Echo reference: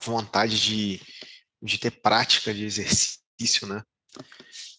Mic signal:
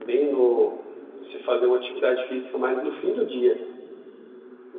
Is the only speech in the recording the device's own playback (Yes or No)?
No